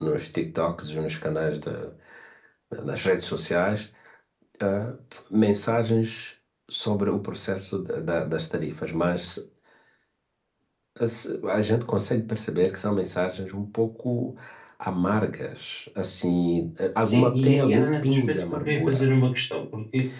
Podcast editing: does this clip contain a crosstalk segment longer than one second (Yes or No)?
Yes